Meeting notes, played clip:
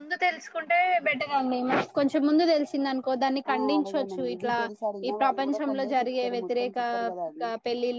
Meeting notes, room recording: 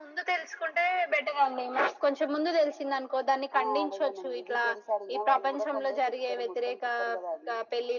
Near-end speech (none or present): none